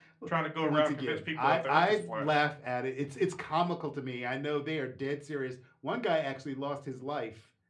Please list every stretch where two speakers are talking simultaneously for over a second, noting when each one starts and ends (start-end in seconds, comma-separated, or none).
0.6-2.3